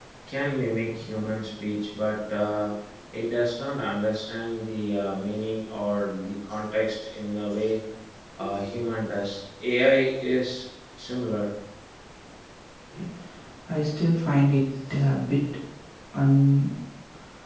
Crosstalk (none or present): none